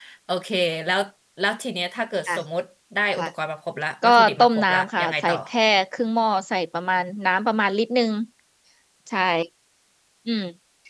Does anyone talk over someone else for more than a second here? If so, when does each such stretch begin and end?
4.0-5.3

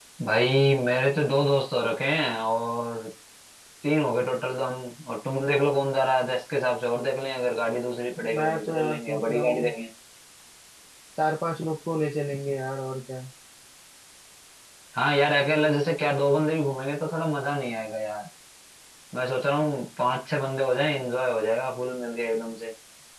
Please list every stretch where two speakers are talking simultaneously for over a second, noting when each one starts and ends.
8.3-9.7

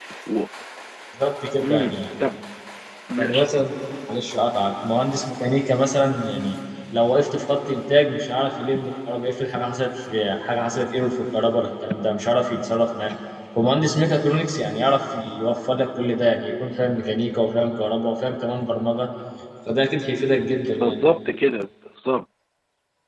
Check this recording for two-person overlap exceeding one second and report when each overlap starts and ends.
none

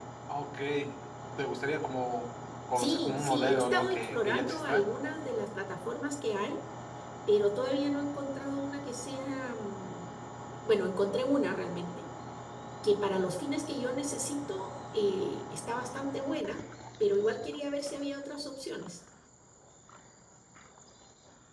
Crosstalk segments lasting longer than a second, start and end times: 2.8-4.8

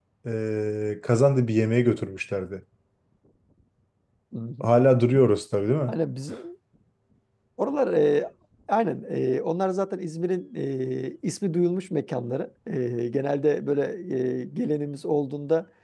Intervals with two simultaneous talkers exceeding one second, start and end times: none

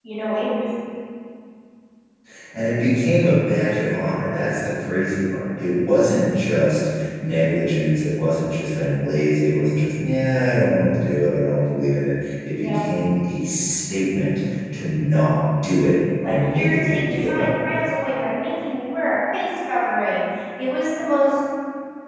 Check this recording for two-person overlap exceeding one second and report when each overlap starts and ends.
16.2-17.8

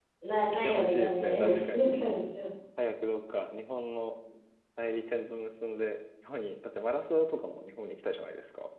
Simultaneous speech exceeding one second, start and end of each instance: 0.5-1.9

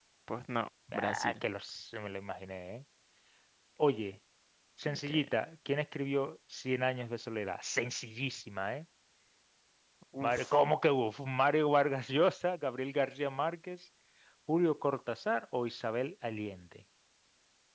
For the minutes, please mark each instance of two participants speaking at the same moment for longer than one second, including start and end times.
none

